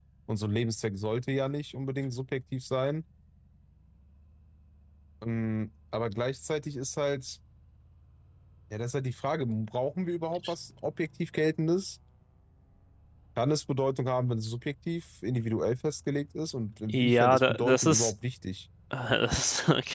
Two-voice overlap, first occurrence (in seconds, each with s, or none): 16.9 s